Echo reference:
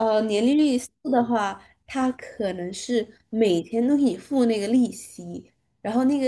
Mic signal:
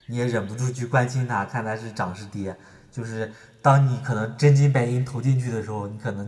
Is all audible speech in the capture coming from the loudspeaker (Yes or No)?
No